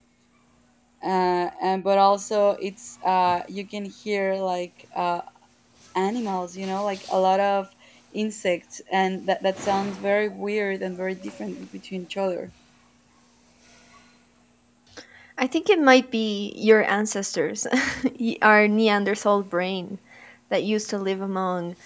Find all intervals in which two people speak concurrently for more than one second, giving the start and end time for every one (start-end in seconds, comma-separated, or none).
none